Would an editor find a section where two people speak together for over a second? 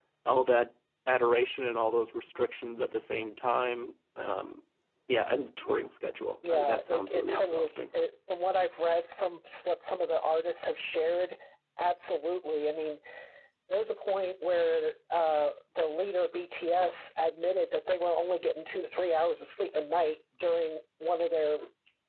Yes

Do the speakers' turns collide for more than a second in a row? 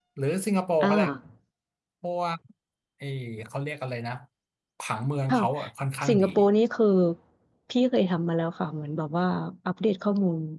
No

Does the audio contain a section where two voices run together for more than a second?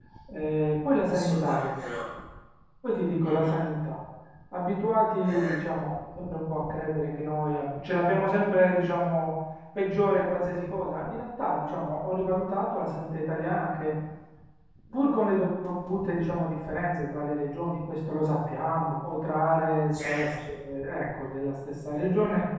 No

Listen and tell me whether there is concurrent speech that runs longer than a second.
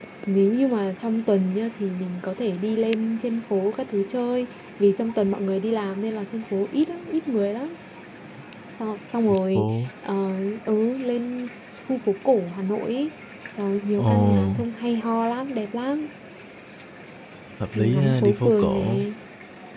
Yes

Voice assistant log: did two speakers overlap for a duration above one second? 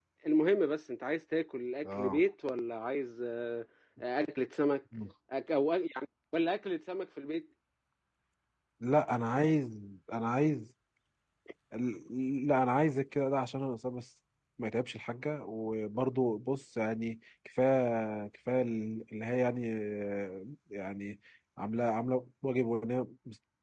No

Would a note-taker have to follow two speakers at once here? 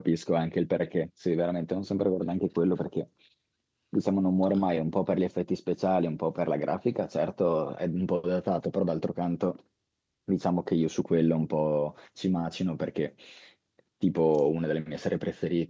No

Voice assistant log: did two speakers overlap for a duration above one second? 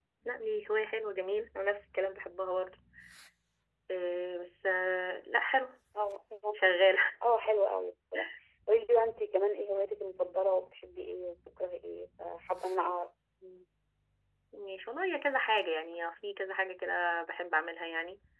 No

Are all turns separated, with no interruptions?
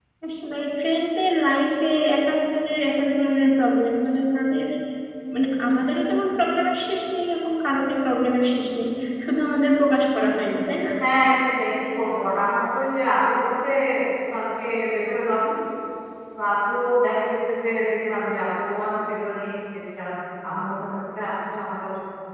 Yes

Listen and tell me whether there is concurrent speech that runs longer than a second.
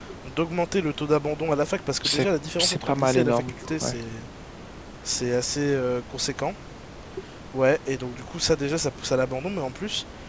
Yes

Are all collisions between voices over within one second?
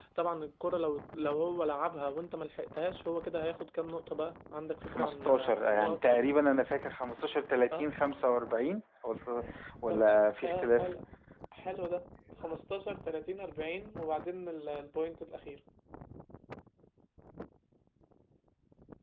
No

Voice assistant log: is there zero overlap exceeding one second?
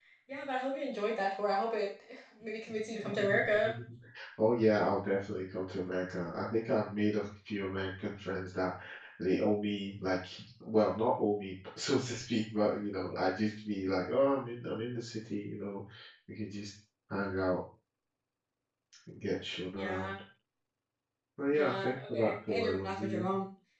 No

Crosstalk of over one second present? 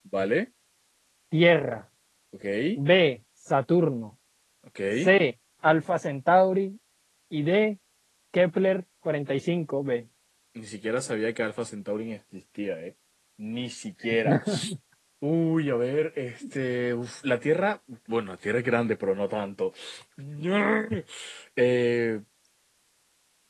No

